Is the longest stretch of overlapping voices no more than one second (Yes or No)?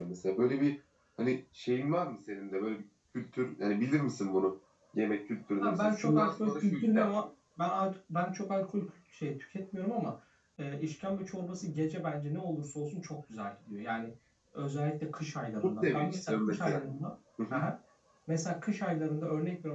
No